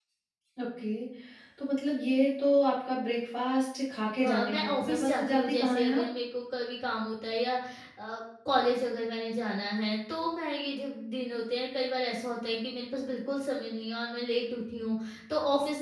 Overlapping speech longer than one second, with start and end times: 4.2-6.0

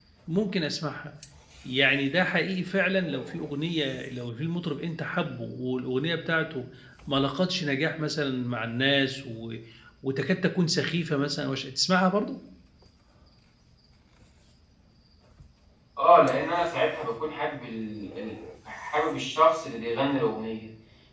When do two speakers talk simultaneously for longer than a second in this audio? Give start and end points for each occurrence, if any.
none

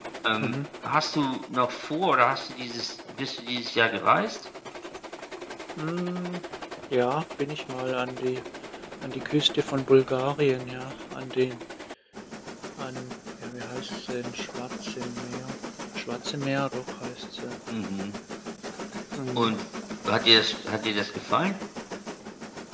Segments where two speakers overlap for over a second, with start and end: none

